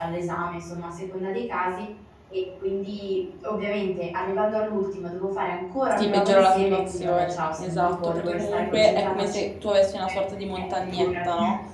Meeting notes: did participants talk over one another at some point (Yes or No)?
Yes